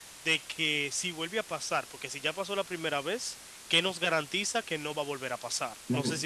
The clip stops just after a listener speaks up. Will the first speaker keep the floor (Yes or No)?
No